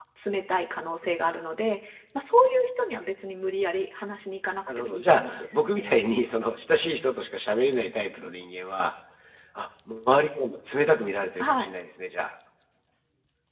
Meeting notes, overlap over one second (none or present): present